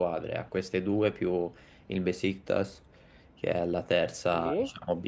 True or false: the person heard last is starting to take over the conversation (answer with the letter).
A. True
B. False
B